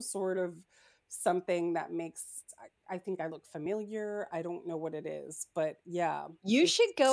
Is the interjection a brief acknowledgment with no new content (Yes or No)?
No